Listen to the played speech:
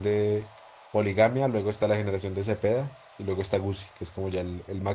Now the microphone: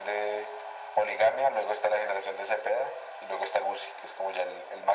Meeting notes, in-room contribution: none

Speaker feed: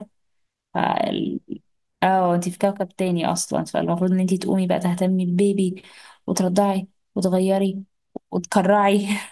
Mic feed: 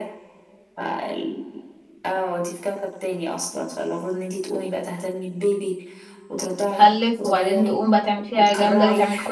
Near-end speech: present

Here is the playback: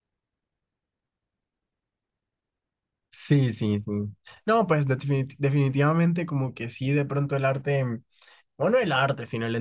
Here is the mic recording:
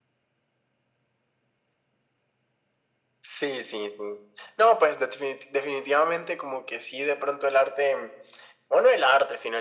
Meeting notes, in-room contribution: none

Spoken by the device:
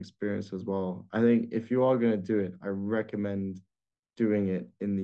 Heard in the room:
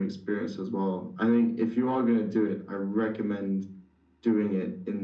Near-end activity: none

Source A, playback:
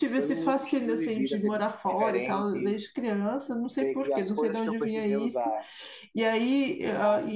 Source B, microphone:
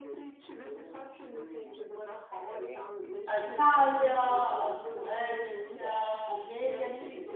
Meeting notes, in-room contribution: present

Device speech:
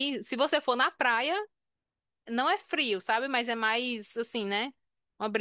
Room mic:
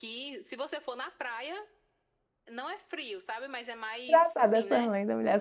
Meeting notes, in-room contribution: present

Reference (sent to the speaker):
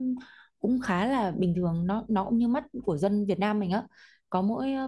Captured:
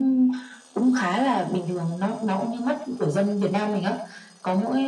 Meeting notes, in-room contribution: none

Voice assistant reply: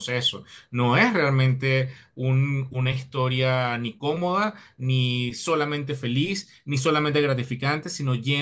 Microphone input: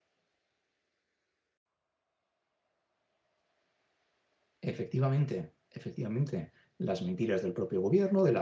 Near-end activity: present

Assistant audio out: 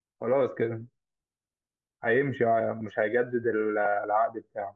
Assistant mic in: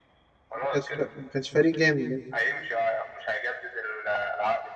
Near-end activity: present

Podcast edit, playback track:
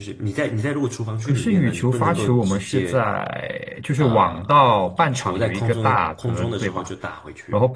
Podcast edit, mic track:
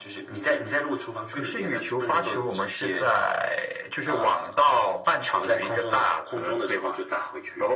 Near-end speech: none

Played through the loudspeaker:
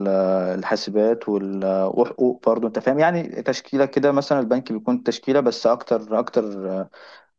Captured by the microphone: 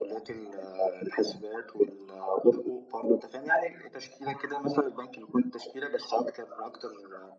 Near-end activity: none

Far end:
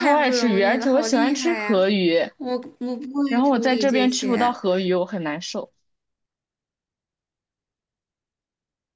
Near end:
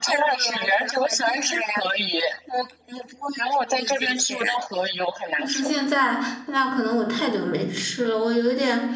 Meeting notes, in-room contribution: present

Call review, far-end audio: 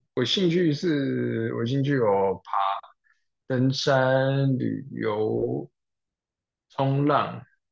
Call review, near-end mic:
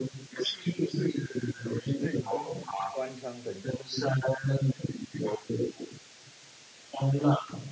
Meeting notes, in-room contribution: present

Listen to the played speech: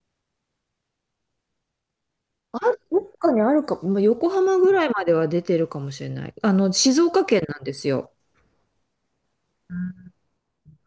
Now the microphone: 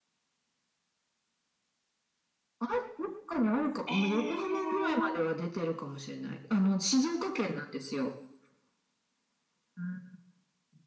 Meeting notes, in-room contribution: present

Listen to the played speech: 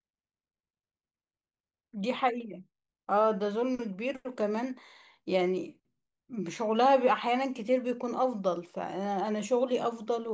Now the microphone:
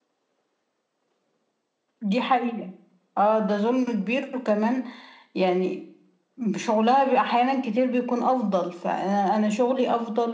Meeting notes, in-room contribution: none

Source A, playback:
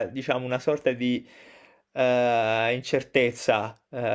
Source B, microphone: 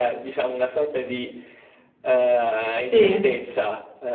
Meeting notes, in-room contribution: present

